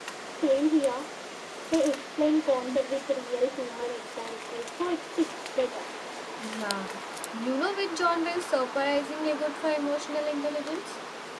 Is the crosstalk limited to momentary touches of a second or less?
Yes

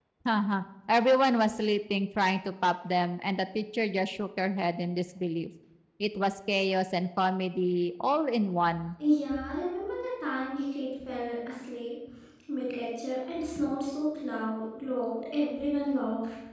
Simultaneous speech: No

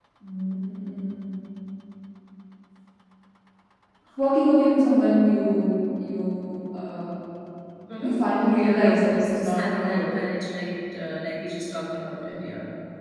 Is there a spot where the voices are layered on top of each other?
Yes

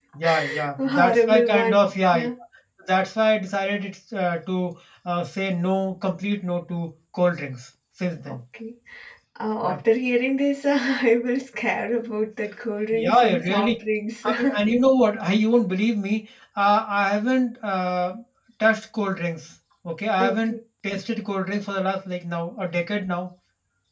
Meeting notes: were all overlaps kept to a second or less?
No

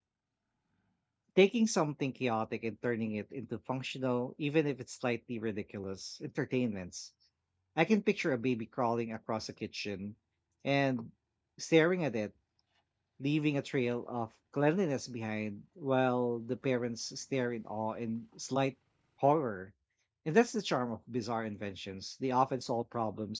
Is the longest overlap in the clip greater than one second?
No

